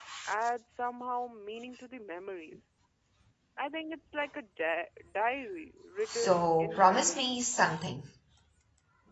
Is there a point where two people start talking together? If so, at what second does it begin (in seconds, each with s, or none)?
6.0 s